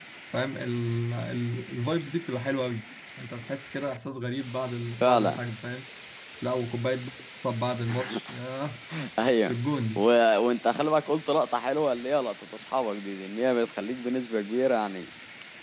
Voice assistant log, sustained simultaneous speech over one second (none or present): none